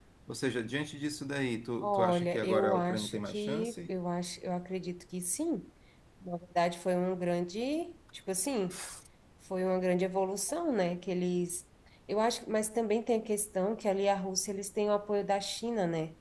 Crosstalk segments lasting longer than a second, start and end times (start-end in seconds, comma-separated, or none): 1.8-3.9